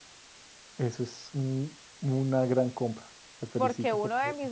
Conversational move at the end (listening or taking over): taking over